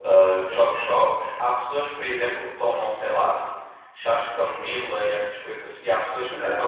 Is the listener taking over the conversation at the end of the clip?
No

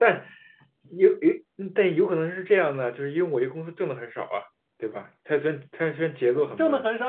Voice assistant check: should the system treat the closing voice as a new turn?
Yes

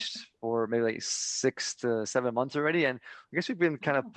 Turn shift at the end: No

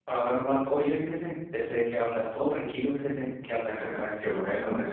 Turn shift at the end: Yes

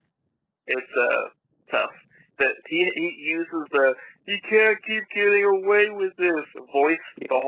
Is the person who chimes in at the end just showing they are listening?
No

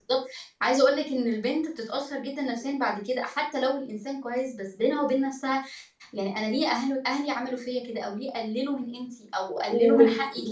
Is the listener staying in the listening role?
No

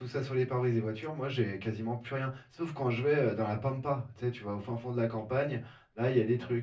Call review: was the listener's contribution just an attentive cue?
Yes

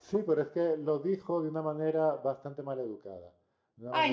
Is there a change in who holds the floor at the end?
Yes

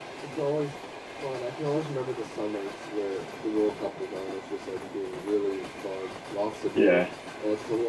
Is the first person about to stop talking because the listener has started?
No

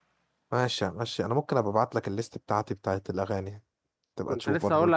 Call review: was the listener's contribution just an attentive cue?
No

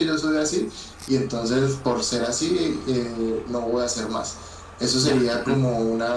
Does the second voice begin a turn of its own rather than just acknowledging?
No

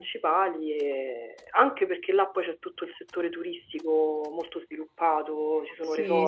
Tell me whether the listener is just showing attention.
No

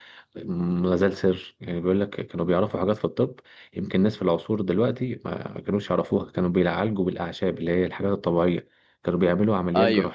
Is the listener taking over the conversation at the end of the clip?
No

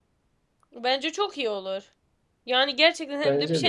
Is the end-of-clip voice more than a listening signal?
No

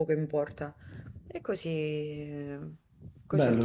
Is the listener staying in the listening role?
No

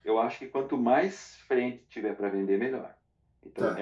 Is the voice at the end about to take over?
Yes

